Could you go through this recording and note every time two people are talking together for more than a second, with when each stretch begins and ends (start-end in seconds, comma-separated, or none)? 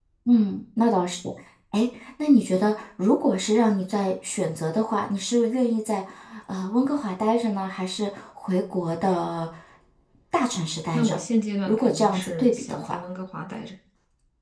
11.7-12.9